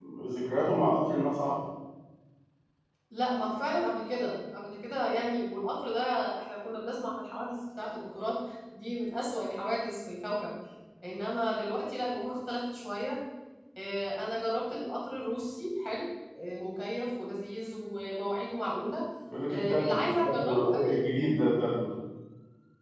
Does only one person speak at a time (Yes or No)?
No